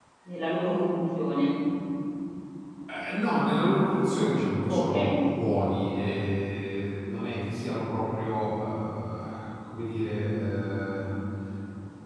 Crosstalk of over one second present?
No

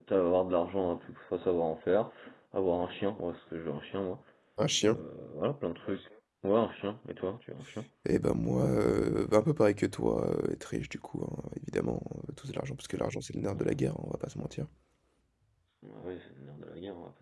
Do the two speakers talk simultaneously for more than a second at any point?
No

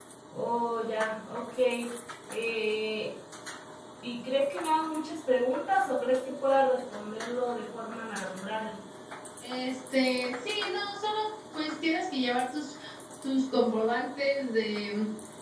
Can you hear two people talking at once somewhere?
No

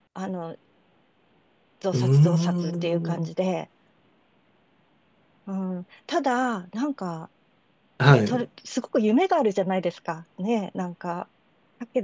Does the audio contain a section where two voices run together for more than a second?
Yes, from 1.9 s

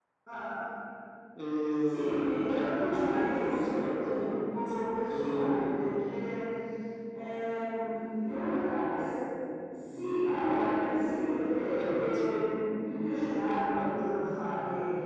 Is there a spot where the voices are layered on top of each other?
Yes, from 1.8 s

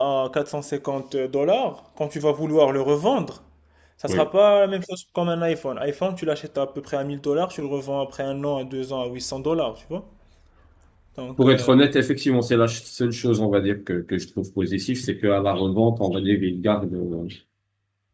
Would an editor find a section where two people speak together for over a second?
No

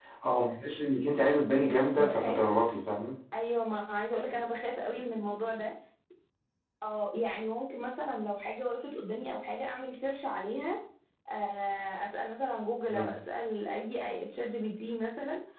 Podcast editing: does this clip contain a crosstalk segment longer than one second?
No

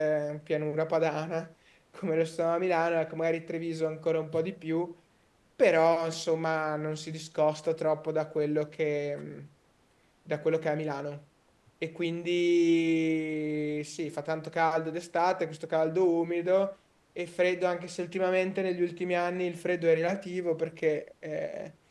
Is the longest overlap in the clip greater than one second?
No

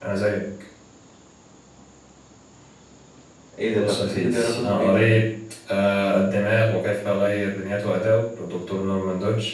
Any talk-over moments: Yes, from 3.7 s

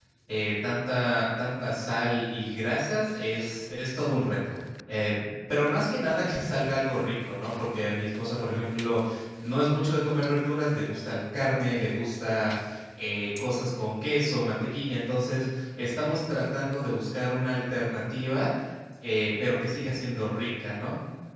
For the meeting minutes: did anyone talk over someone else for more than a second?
No

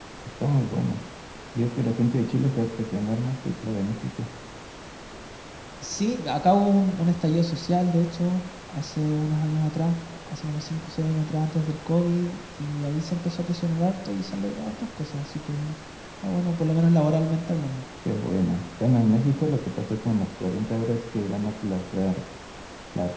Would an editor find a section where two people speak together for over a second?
No

